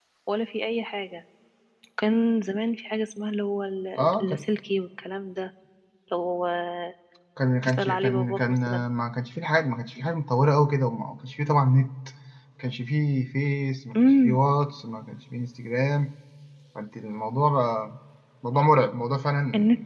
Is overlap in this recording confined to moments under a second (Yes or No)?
No